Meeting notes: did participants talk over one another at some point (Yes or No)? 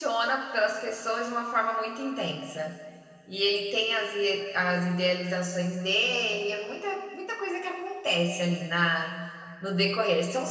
No